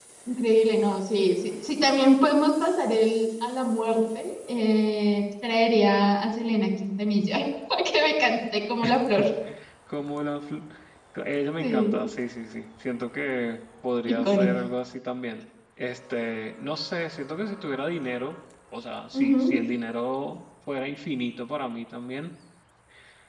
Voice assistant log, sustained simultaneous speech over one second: none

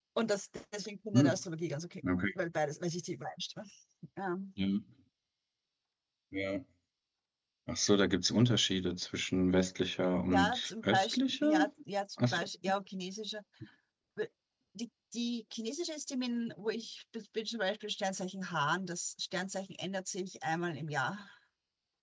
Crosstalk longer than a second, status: present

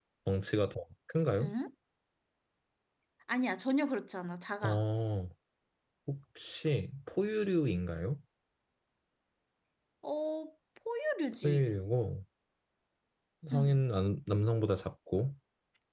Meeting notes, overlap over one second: none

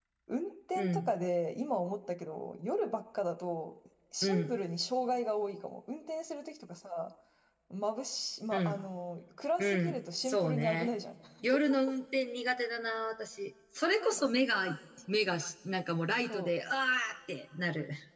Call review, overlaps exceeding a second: present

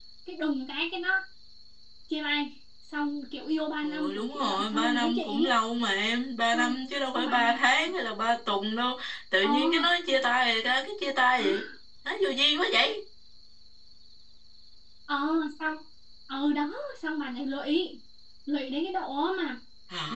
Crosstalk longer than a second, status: present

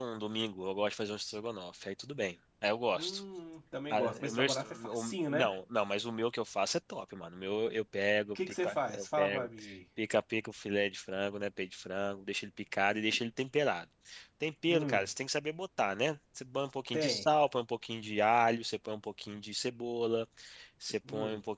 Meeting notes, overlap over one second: present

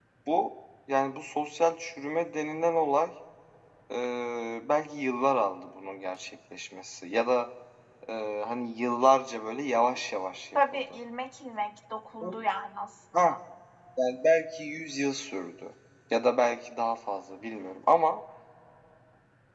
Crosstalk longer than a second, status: none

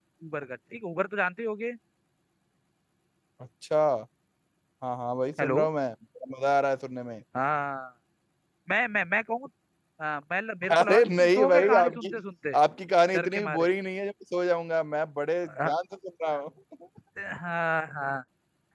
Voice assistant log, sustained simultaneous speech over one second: present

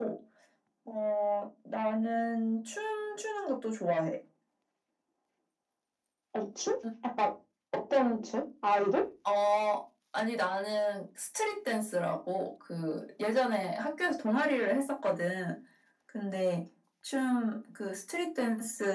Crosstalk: none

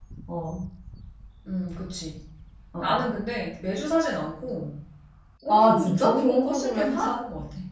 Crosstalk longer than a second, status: present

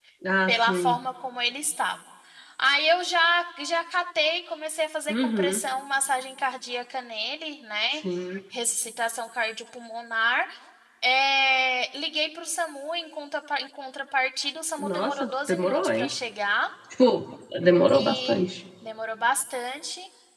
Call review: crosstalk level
present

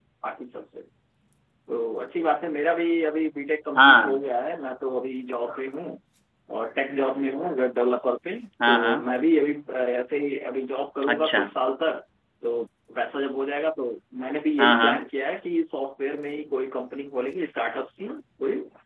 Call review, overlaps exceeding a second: none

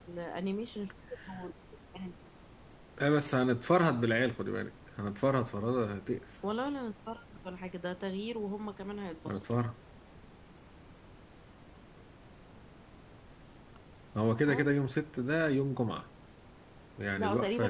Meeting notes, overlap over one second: none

